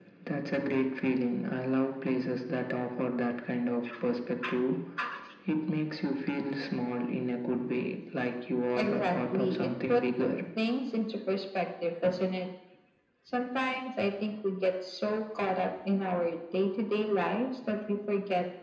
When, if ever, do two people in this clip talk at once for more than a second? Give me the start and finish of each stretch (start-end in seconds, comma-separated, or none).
8.8-10.0